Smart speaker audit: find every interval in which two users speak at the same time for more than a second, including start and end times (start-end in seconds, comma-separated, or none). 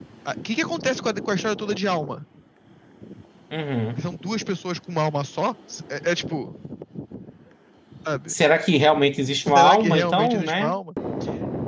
9.5-10.8